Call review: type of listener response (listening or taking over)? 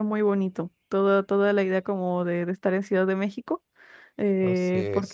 listening